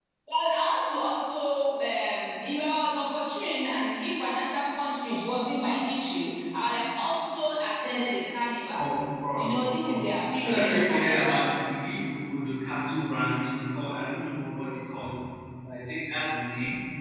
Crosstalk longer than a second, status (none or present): present